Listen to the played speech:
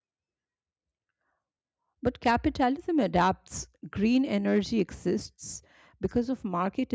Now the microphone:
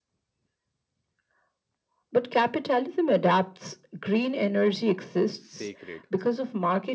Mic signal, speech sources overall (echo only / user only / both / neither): both